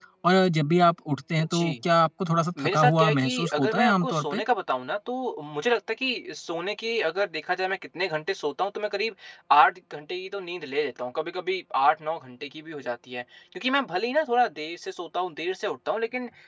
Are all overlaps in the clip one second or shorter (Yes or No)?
No